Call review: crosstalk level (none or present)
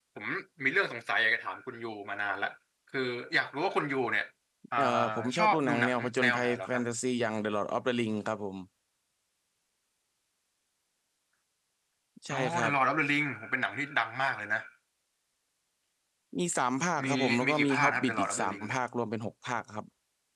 present